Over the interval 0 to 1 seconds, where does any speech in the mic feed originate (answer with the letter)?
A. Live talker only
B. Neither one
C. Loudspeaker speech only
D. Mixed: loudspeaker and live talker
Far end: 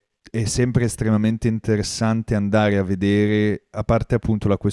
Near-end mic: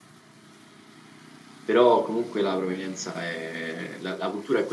B